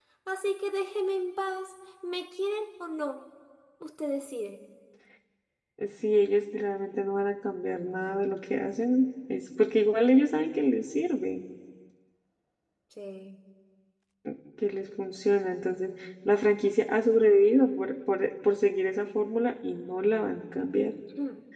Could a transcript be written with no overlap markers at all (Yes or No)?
Yes